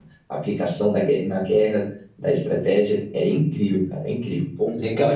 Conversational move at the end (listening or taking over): taking over